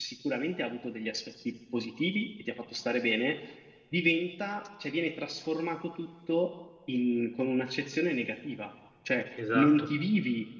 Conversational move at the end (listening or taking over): listening